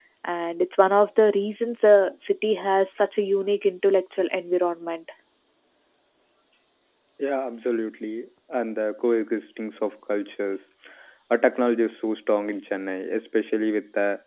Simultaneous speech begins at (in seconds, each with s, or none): none